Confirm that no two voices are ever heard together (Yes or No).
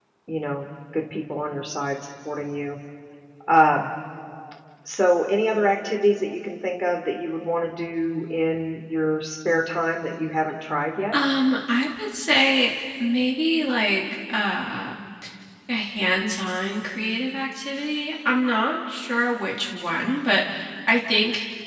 Yes